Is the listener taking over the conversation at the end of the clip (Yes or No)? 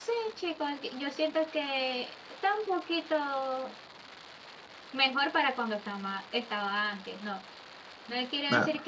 No